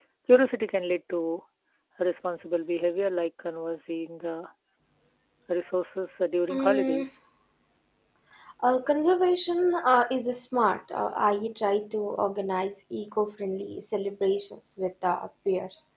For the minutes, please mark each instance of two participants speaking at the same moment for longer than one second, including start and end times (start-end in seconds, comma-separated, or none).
none